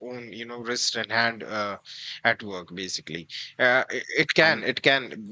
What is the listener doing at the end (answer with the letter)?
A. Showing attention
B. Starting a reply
A